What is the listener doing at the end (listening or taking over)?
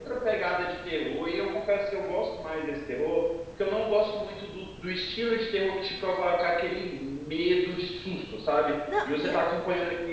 listening